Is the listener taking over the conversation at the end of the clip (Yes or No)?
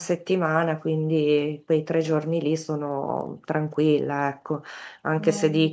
No